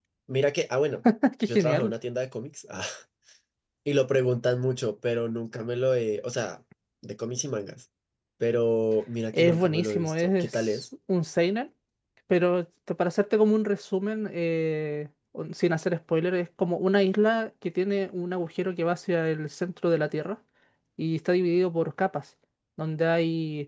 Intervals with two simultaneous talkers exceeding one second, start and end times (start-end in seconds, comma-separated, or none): 9.3-10.8